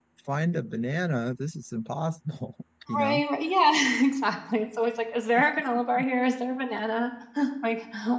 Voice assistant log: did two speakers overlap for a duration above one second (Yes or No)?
No